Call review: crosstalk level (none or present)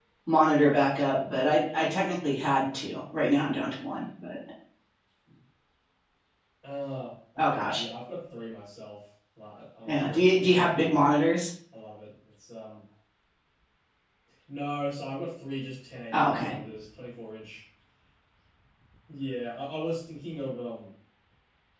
present